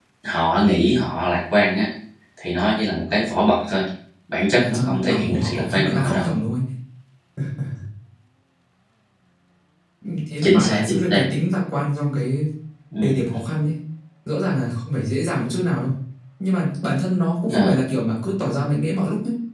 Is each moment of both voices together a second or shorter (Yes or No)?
No